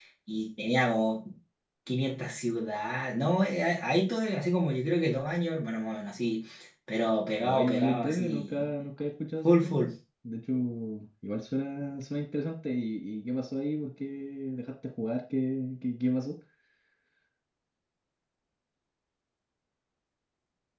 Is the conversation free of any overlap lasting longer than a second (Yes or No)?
No